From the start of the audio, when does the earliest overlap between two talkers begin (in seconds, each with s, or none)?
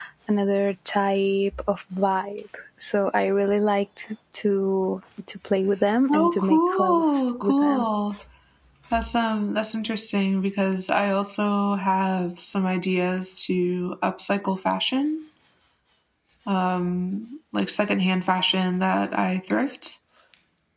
6.1 s